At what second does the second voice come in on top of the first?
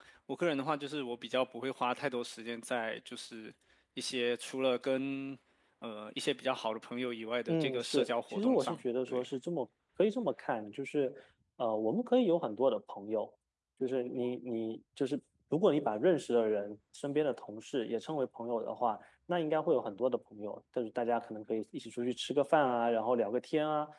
7 s

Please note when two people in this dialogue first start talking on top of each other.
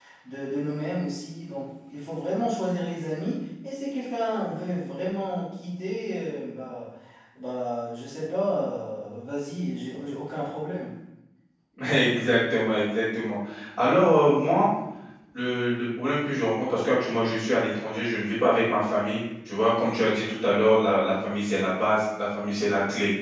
none

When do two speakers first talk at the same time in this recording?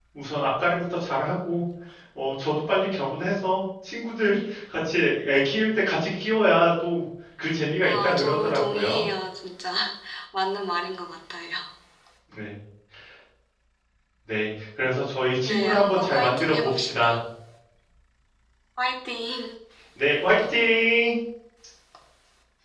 8 s

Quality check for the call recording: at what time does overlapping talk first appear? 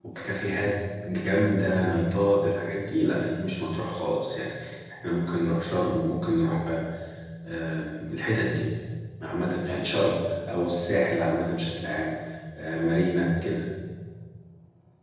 none

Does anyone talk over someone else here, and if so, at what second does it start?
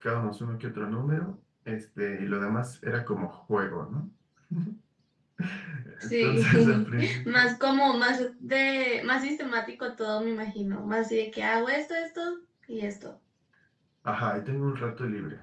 6 s

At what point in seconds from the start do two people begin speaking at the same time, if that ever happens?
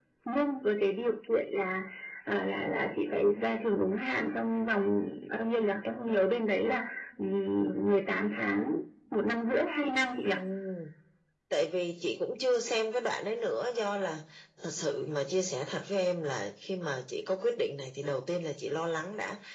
none

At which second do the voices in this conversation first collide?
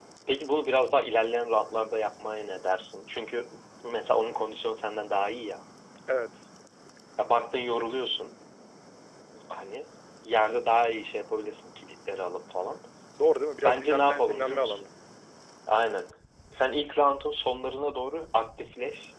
14 s

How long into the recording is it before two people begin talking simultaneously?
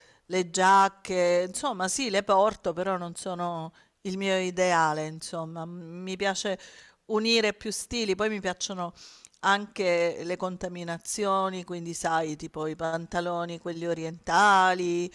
none

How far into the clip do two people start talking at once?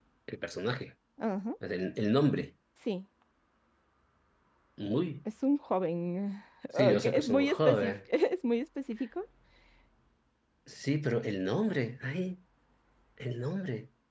7 s

